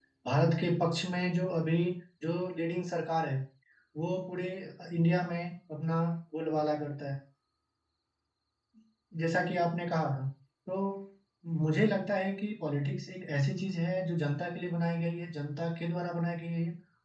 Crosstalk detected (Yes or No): No